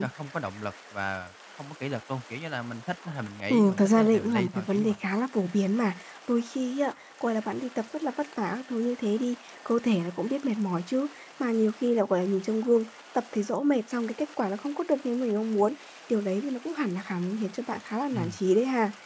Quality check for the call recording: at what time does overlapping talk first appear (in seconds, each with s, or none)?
3.5 s